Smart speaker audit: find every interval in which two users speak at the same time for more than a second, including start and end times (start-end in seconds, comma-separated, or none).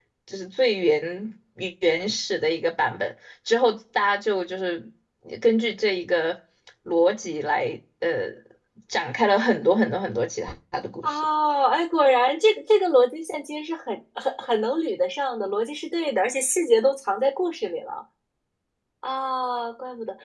none